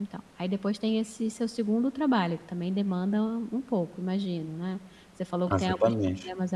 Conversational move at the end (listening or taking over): listening